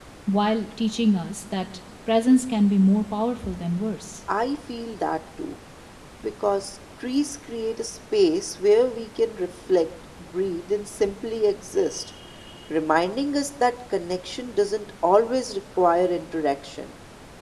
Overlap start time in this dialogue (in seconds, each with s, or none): none